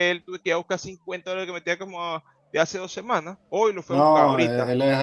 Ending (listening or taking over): taking over